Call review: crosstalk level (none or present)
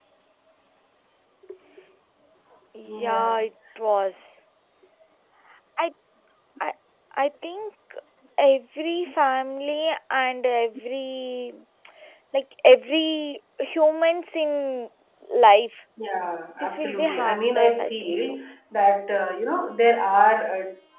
present